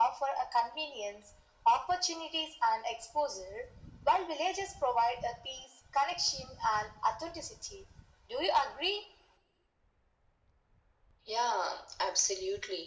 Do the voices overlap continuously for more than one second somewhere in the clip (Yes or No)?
No